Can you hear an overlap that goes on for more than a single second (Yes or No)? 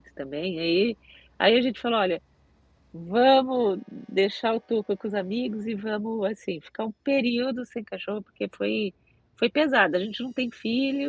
No